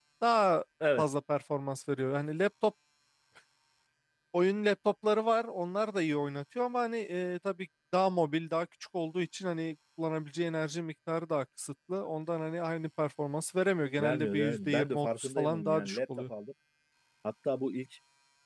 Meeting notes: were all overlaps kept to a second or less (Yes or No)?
No